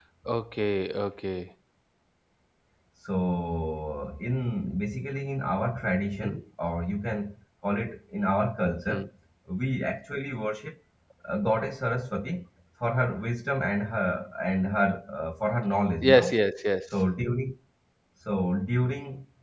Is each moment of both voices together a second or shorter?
Yes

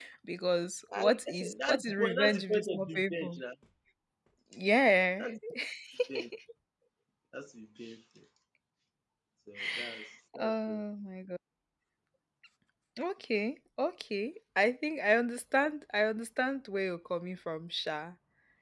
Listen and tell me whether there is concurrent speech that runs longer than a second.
Yes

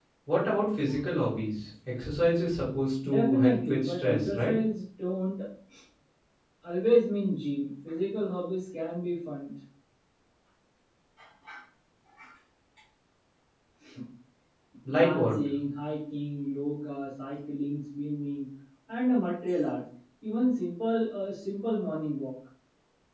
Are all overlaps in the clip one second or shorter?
No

